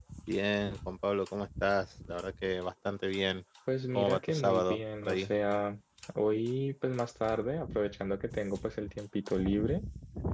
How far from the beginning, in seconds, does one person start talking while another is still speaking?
4.0 s

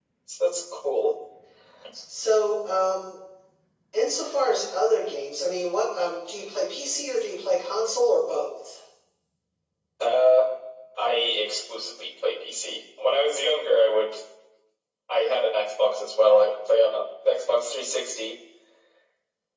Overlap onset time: none

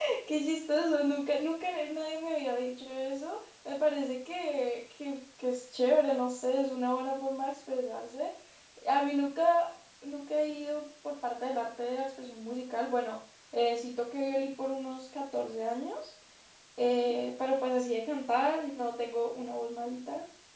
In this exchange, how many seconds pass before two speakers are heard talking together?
none

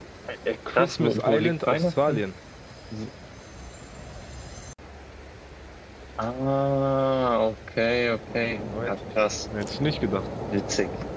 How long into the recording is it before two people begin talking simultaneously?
0.7 s

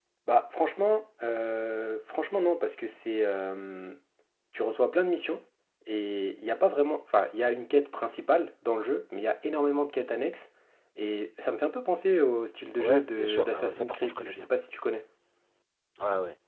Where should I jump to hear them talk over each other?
12.8 s

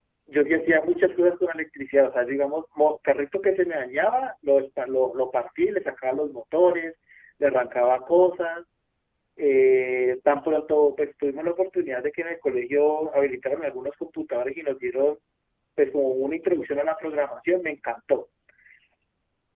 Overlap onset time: none

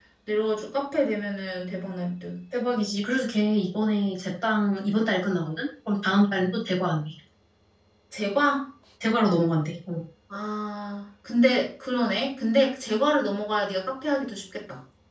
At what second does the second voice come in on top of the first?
none

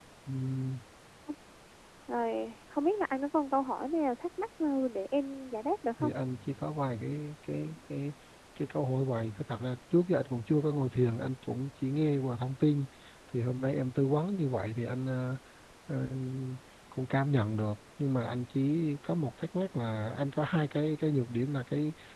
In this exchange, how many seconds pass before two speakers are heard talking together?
none

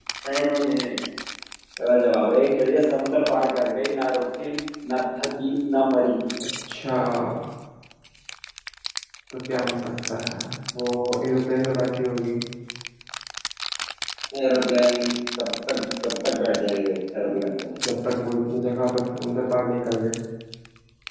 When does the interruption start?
none

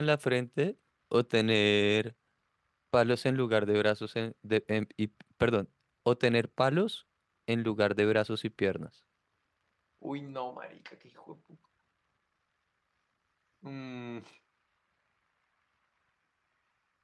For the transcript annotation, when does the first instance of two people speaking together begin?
none

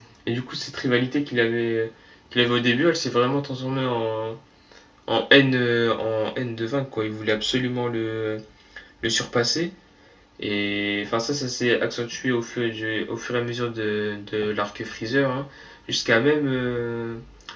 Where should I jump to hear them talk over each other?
none

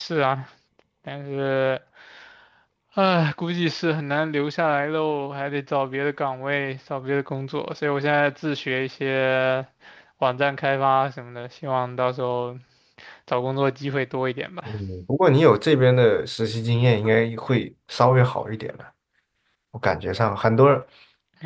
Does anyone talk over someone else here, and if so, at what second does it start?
none

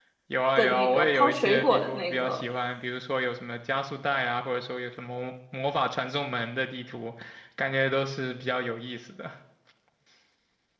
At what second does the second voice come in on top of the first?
0.6 s

